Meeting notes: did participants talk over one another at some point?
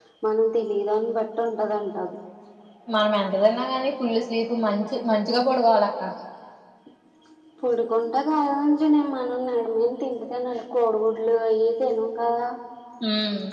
No

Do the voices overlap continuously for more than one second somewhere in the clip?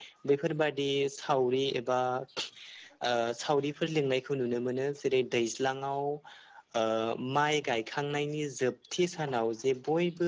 No

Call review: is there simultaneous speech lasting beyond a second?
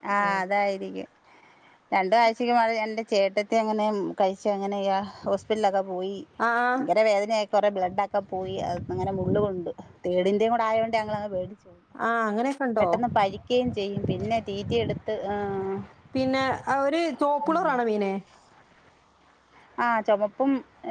No

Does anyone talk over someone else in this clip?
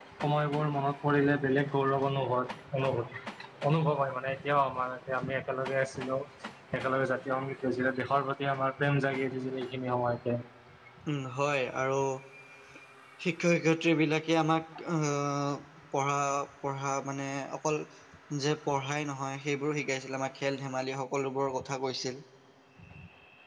No

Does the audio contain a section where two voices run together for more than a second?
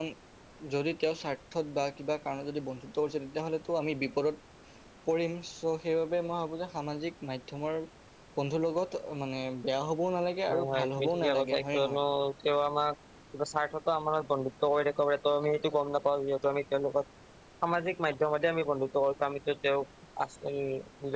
Yes, from 10.5 s

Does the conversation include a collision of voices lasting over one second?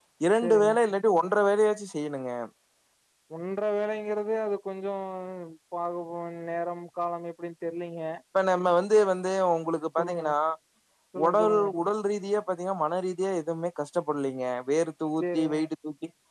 No

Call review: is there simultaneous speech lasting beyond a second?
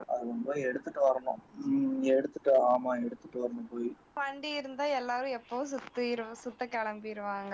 No

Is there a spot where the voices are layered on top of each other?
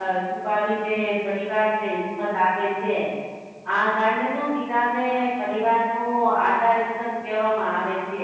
No

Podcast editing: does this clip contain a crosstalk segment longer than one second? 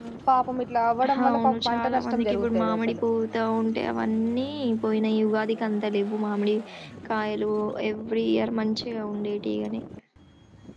Yes, from 1.1 s

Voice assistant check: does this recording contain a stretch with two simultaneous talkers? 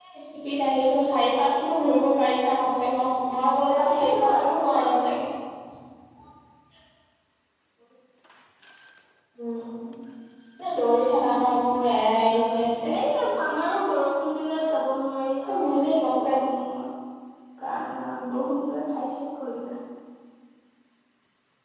Yes, from 3.8 s

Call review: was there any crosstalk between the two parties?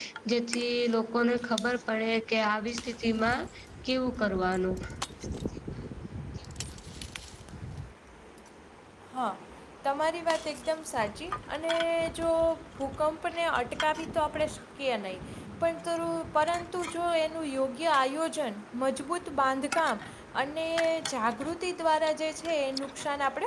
No

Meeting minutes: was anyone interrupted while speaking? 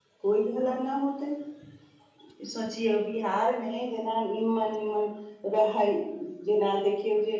No

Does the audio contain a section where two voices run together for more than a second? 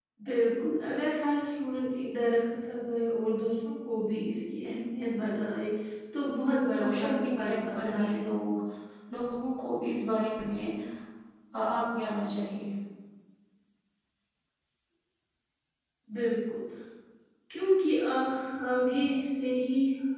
Yes, from 6.8 s

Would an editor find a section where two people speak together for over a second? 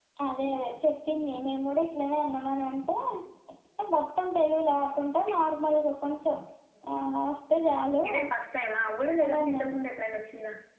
No

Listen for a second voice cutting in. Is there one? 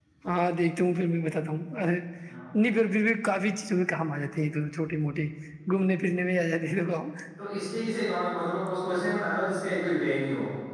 No

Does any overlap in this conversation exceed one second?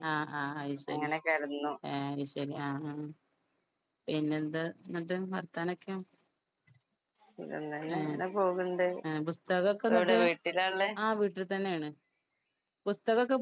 No

